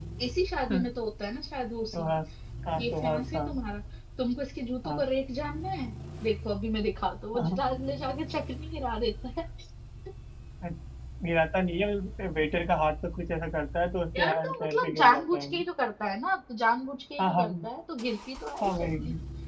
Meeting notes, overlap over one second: present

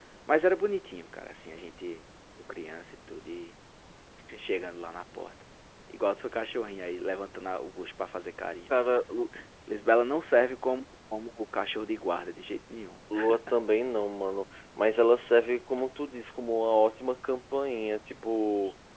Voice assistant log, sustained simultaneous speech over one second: none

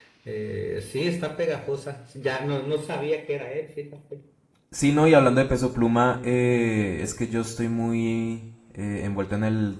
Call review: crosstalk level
none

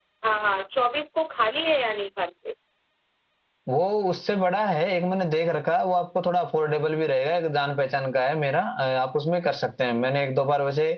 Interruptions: none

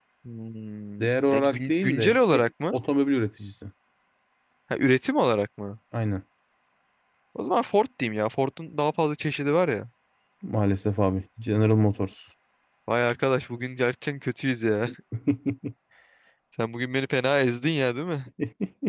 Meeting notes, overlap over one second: present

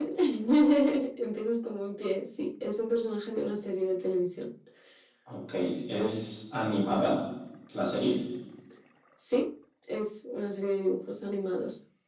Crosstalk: none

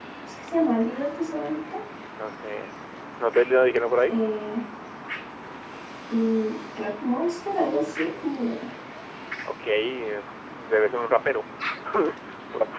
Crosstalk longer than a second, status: none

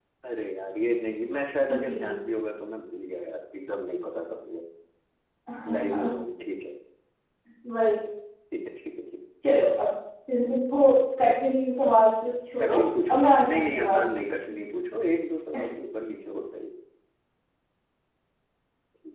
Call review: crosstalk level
present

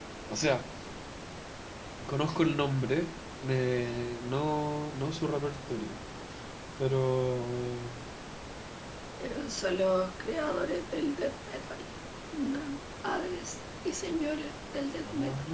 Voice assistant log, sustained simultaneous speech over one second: none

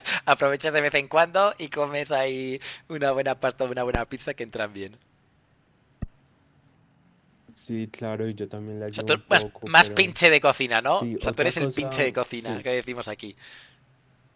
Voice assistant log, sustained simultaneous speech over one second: present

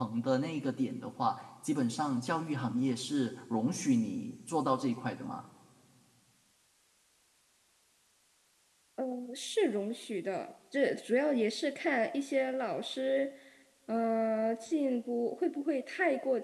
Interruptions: none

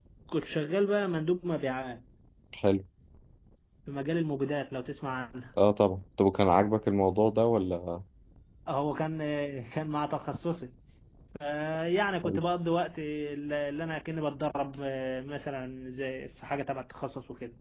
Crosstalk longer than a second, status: none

